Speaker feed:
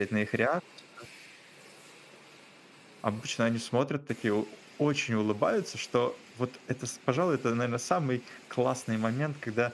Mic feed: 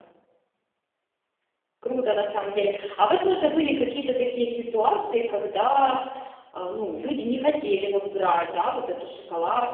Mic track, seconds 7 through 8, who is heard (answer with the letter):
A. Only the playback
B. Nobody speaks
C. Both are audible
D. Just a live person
D